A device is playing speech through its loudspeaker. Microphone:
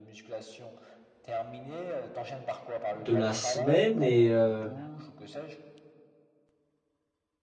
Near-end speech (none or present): present